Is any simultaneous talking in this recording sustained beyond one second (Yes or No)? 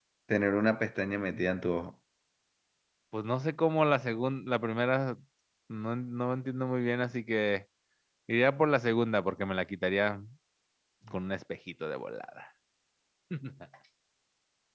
No